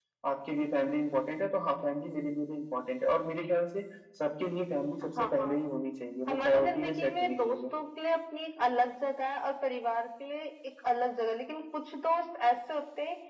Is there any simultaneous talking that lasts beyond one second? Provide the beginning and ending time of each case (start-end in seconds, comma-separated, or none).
6.3-7.6